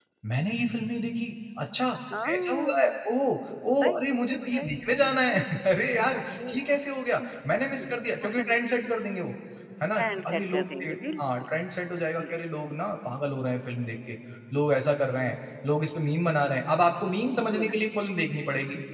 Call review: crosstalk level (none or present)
present